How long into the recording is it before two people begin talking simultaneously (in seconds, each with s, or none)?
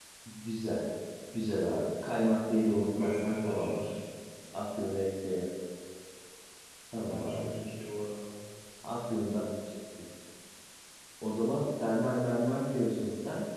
2.5 s